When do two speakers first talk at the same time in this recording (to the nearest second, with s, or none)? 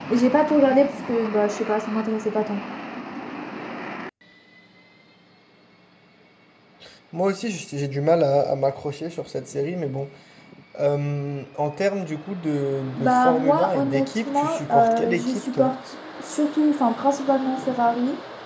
13 s